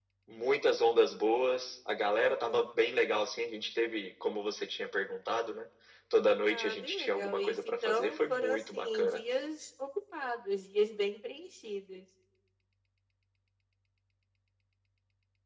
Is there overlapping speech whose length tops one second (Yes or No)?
Yes